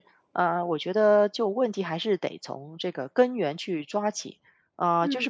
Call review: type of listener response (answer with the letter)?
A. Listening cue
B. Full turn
A